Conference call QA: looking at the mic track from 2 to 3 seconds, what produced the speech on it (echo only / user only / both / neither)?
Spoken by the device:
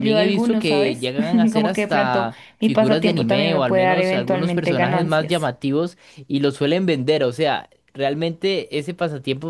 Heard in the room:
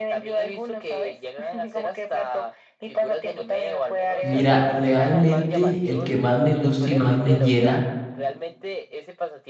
echo only